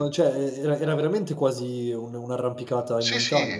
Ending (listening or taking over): taking over